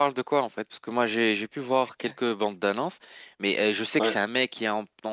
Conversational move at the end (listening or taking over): listening